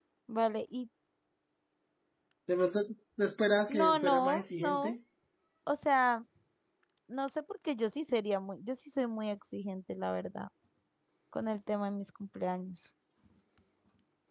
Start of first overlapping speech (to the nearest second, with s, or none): 4 s